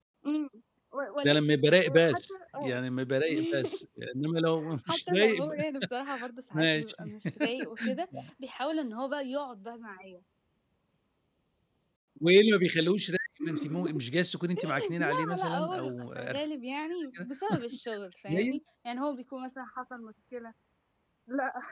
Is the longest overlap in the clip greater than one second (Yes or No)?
Yes